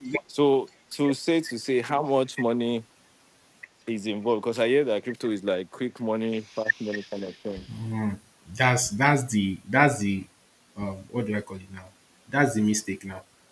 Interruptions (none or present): none